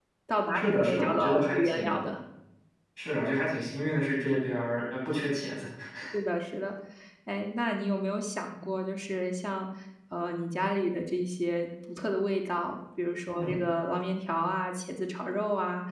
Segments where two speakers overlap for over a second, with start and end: 0.5-2.0

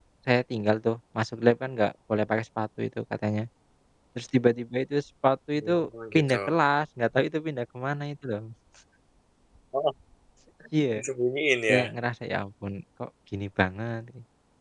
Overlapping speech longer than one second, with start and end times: none

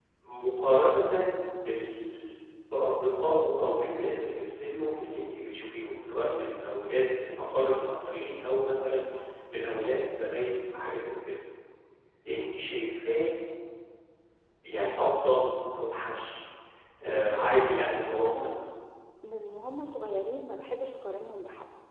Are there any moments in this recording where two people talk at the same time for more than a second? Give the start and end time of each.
17.1-18.5

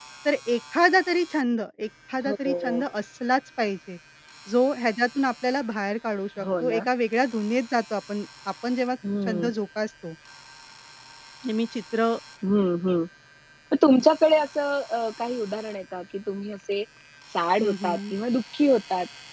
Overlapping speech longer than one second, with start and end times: none

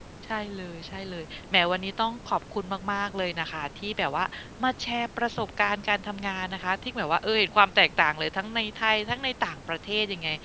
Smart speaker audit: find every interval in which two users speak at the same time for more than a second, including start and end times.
none

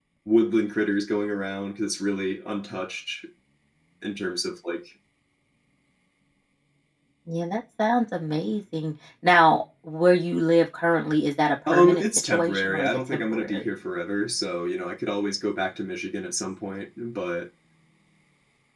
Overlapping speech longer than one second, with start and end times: 11.7-13.7

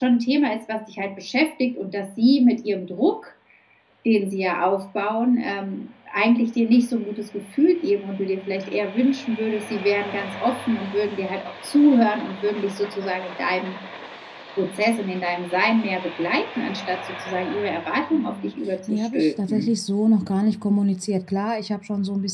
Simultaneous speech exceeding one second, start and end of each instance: 18.1-19.7

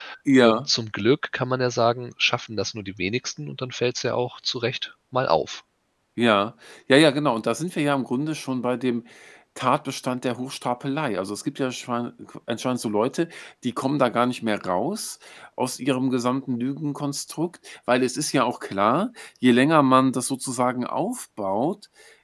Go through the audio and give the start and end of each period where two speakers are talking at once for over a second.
none

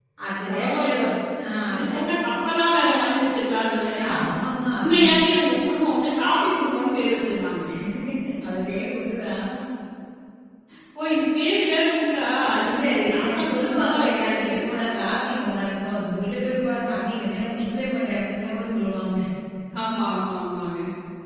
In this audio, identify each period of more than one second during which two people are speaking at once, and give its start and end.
12.5-14.7

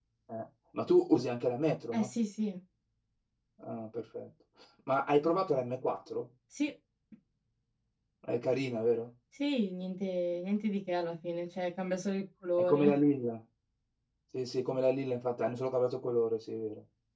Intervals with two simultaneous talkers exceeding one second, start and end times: none

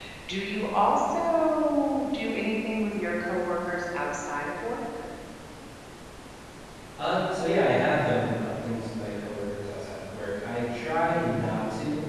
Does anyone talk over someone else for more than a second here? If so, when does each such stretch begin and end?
none

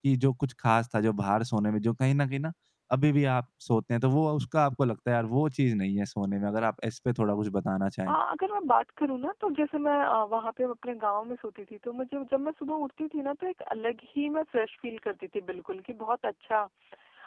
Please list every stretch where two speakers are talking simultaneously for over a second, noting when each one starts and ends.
none

